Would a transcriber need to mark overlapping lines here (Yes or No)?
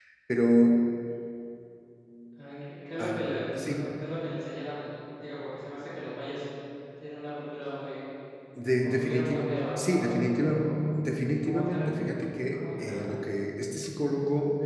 Yes